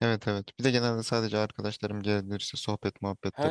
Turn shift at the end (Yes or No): Yes